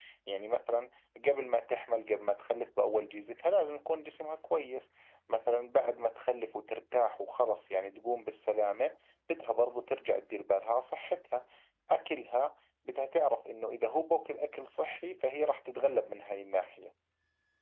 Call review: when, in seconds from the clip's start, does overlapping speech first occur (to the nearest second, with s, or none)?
none